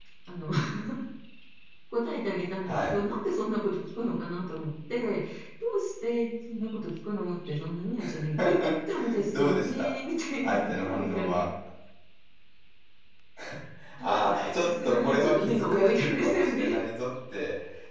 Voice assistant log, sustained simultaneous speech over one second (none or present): present